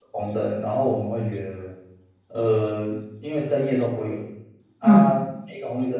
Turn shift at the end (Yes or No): No